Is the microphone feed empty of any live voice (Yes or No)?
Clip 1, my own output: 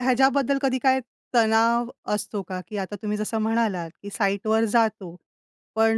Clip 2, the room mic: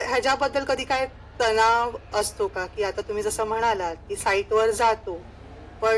Yes